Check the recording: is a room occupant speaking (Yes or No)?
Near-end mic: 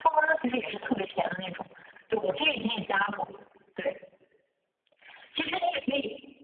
No